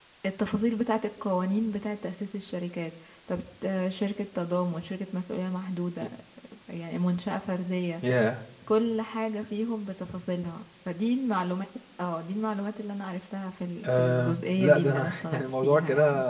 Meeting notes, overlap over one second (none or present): present